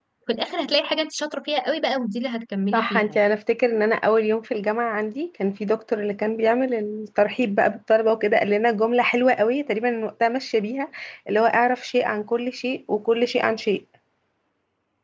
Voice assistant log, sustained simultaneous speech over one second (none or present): none